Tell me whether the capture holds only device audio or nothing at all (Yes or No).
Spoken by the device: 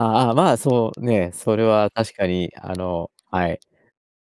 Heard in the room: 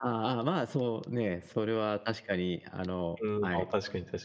No